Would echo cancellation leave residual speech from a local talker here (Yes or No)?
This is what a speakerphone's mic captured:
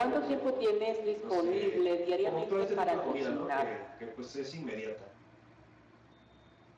Yes